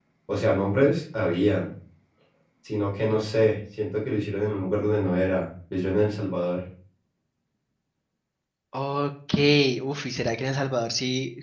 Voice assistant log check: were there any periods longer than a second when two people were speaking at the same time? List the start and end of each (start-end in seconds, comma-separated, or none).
none